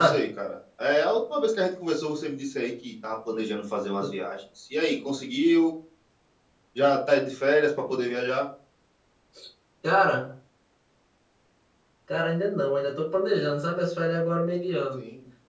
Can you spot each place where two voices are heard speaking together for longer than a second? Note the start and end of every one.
none

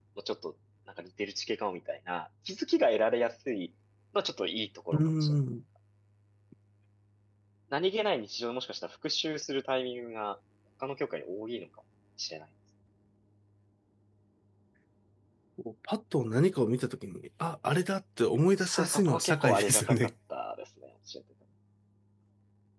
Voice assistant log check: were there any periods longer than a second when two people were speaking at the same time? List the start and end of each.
18.6-20.1

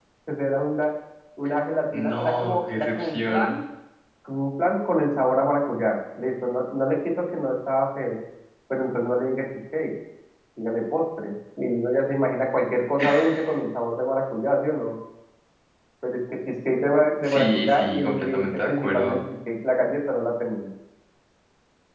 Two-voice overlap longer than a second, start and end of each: 1.9-3.5, 17.2-19.2

